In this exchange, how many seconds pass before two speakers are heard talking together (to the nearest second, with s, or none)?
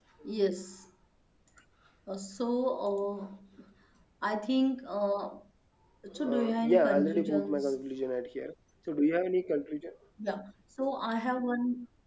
6 s